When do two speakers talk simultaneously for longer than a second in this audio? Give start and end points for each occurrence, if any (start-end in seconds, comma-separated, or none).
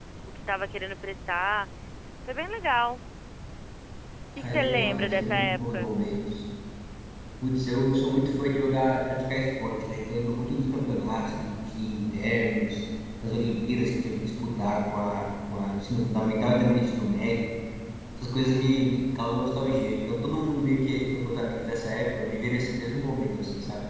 4.4-5.9